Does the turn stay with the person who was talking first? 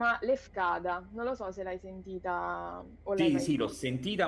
No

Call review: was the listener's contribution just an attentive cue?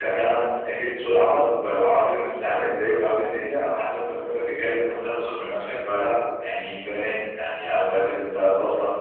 Yes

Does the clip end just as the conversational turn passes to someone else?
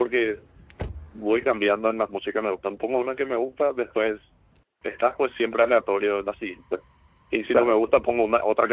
No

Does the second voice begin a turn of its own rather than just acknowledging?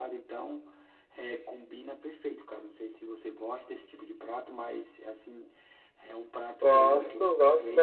Yes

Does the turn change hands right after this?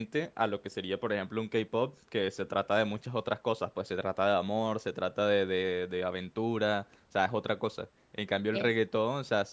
No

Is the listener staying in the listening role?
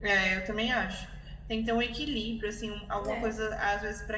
Yes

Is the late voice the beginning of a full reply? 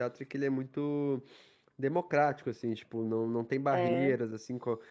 No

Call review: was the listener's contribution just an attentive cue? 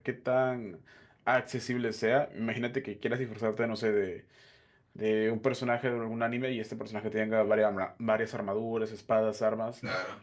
Yes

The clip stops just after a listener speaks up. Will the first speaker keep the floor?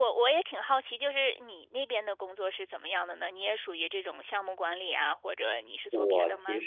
No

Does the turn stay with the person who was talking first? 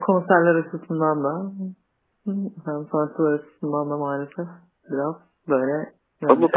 No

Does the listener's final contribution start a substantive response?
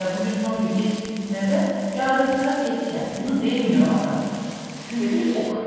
Yes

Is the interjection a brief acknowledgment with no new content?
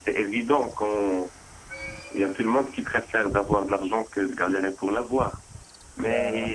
Yes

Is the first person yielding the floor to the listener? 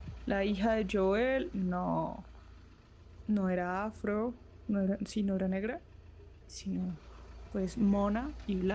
No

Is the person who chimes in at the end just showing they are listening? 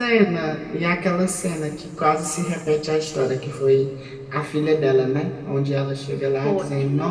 Yes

